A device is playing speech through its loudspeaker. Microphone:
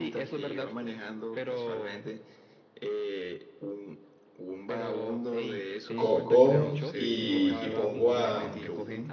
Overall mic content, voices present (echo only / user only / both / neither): both